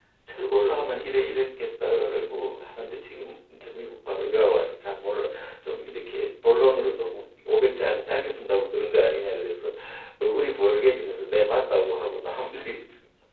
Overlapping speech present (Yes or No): No